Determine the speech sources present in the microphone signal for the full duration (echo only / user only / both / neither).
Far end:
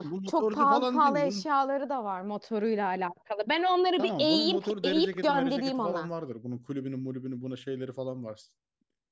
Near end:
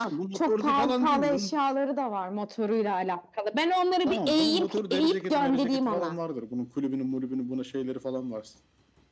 echo only